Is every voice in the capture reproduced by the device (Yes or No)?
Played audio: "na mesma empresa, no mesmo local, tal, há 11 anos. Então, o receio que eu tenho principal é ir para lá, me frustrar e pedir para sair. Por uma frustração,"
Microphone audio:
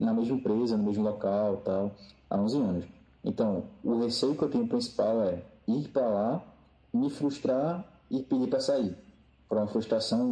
Yes